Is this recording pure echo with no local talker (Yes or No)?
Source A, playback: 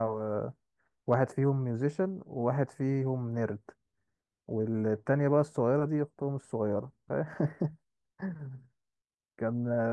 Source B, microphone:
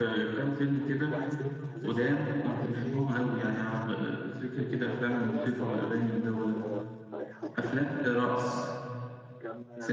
No